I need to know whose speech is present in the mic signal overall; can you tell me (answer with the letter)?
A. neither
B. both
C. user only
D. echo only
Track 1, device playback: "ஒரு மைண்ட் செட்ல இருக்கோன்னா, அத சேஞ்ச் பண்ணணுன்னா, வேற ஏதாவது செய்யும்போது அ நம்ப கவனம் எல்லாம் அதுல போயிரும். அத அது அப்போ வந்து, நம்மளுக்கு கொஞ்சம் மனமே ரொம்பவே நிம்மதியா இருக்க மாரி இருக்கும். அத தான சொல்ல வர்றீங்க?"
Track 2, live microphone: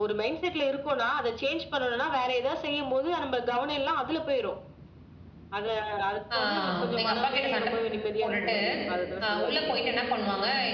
B